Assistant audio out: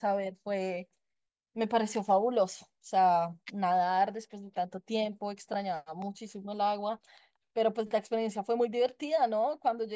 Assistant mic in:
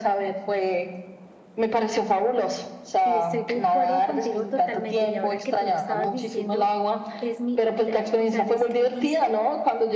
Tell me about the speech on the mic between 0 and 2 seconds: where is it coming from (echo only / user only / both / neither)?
echo only